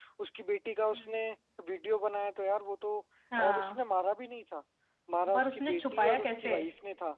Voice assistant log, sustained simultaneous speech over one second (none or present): present